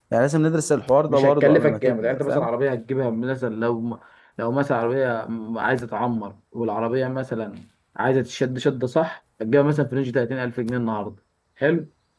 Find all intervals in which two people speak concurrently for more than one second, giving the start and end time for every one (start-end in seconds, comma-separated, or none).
1.1-2.5